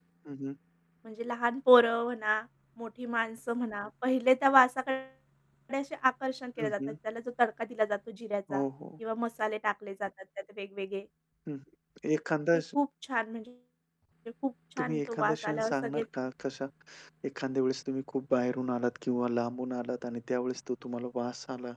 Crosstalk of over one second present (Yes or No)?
Yes